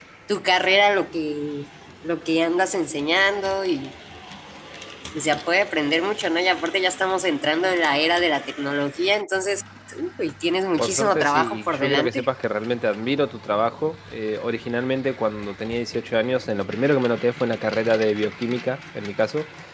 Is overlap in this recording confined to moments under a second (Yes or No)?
No